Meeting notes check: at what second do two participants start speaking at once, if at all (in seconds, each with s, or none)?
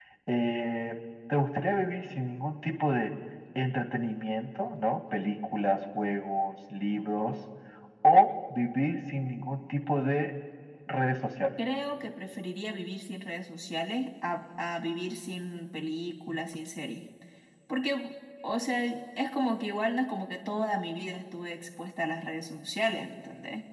none